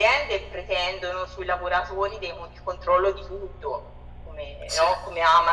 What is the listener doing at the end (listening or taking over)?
listening